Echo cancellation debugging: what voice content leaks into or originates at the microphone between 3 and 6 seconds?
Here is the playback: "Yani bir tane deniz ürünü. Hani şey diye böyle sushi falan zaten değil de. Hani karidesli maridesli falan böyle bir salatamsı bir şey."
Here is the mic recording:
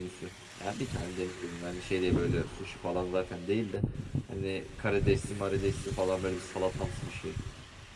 echo only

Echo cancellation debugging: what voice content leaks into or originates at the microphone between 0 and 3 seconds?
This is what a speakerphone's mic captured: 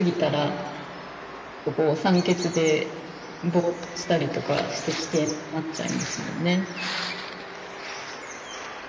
echo only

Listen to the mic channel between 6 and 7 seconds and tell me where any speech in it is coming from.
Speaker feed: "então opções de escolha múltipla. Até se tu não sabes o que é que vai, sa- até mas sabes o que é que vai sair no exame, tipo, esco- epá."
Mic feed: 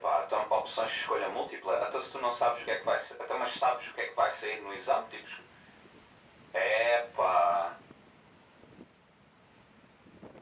echo only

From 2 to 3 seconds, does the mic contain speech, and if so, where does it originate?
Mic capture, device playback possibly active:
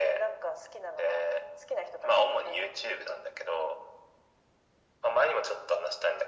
echo only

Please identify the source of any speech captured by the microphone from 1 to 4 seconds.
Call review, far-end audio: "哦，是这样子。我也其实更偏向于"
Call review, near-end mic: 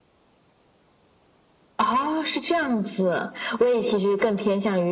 echo only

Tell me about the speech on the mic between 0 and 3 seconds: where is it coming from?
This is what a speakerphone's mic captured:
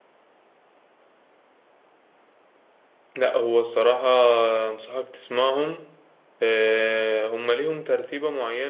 neither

